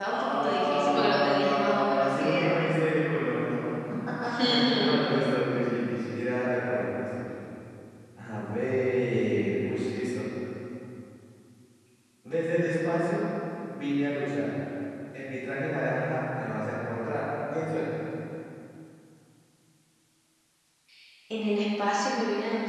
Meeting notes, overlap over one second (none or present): present